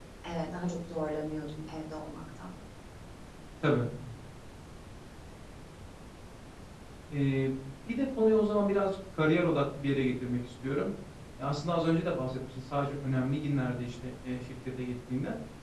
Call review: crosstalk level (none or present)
none